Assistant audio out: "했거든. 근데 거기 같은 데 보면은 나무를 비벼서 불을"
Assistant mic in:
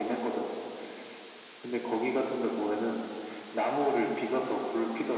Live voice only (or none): none